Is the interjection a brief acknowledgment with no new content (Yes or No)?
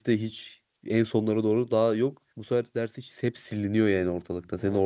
No